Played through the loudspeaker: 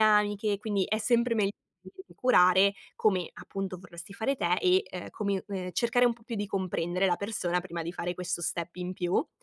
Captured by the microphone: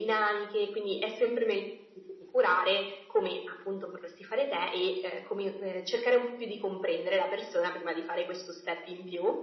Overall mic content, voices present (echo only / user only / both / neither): echo only